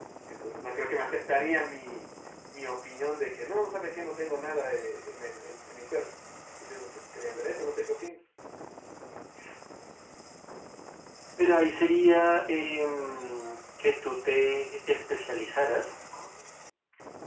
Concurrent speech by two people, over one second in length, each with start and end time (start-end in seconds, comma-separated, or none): none